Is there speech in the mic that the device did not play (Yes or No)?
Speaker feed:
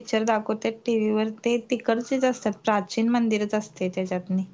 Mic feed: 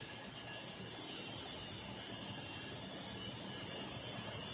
No